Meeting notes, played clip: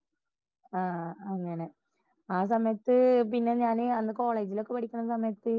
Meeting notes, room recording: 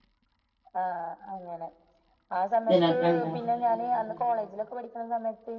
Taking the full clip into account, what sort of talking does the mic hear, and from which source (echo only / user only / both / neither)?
both